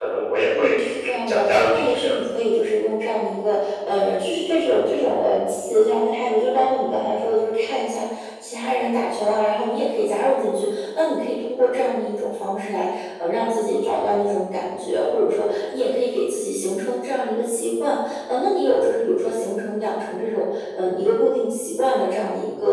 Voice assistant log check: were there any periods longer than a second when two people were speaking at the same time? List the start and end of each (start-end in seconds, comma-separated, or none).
0.6-2.1